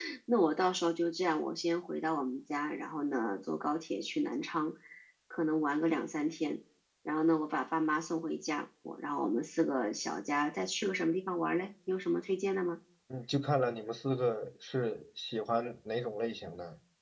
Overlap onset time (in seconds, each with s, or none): none